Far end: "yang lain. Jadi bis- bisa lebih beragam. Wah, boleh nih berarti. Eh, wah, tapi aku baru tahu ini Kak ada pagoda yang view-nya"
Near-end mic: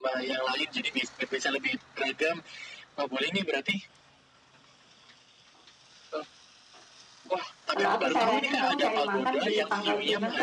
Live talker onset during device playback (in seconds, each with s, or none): 7.7 s